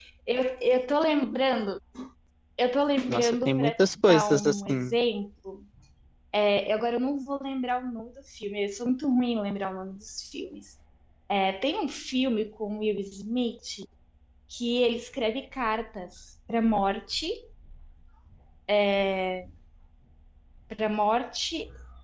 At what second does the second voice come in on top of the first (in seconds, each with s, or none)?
3.1 s